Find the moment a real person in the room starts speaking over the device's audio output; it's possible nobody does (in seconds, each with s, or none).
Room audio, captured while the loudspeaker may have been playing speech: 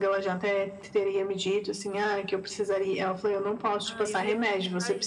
3.8 s